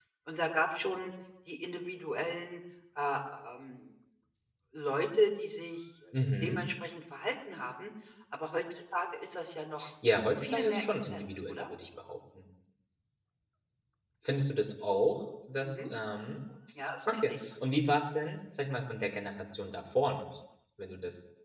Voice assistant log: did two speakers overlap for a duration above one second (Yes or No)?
Yes